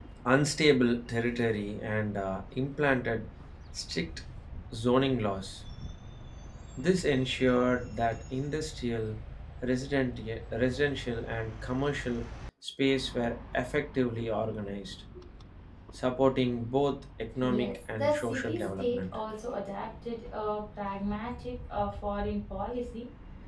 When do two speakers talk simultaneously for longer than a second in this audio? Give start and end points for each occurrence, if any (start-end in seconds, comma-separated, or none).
17.5-19.2